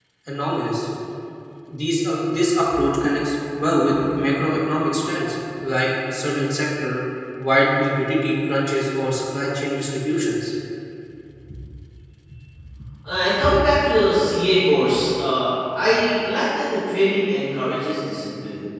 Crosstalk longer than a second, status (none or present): none